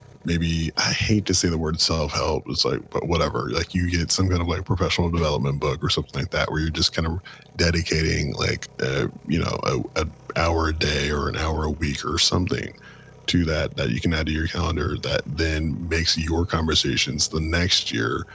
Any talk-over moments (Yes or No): No